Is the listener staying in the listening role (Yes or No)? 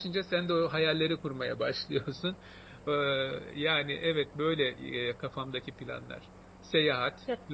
Yes